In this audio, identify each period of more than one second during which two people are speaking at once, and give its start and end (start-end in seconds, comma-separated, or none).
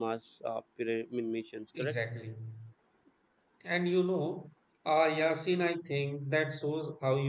none